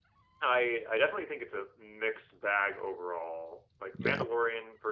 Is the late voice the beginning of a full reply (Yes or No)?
No